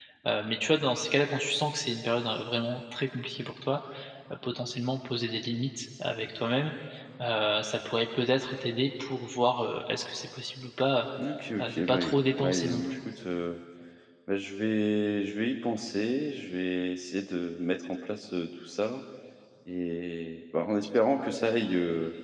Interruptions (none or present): present